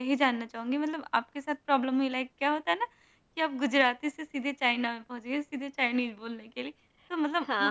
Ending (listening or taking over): listening